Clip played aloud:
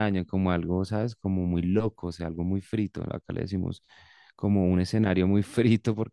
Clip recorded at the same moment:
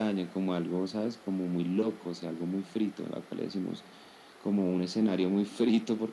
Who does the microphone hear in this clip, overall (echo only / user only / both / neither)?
echo only